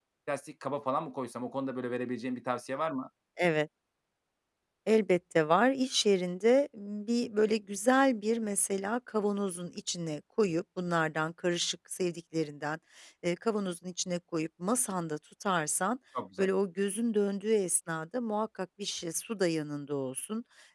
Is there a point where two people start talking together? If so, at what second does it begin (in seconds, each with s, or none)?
none